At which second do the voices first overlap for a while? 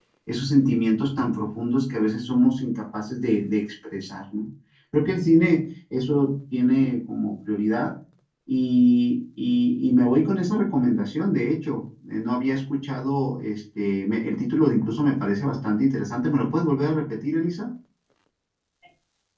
none

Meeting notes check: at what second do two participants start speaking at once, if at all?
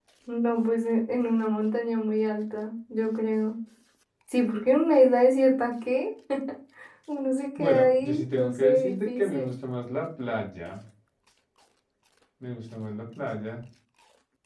8 s

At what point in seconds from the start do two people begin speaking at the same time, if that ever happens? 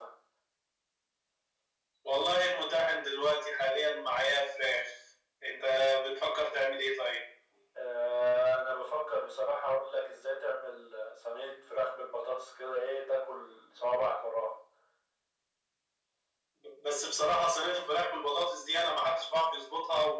none

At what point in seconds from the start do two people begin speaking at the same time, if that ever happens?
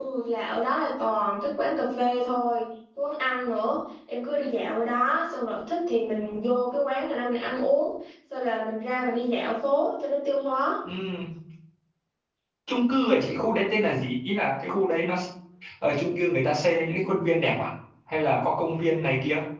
none

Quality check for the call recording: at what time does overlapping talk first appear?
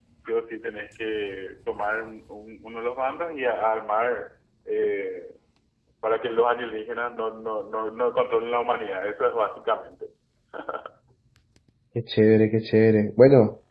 none

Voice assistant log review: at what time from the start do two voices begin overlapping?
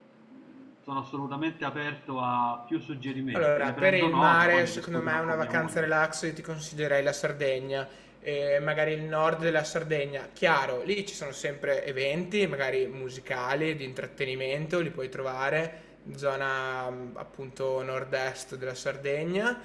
3 s

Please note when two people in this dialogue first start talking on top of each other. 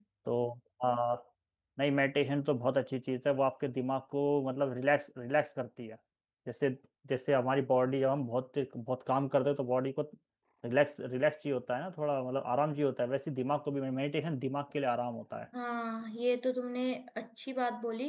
none

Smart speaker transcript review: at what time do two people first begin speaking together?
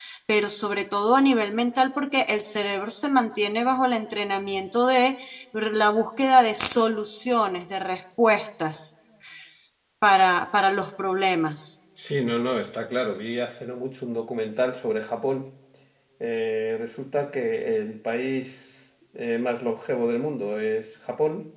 none

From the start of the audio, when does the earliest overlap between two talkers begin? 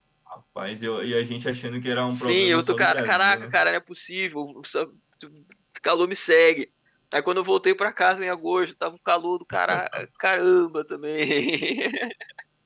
2 s

